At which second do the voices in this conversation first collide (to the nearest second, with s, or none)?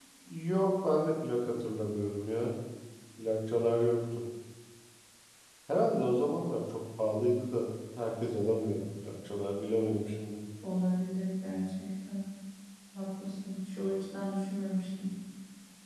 none